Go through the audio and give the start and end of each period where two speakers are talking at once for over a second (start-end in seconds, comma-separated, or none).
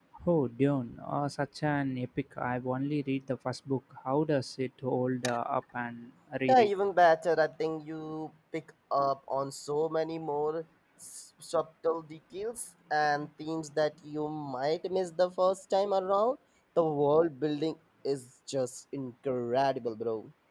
none